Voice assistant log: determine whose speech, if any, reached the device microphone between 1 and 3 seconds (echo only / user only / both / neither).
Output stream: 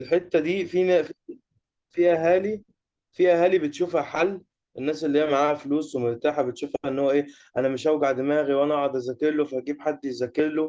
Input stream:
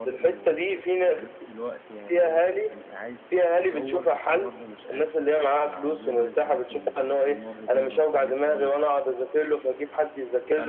both